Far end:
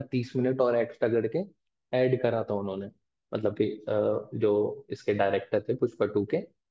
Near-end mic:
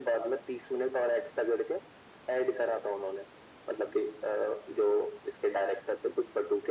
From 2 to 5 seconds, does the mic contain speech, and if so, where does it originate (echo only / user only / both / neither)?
echo only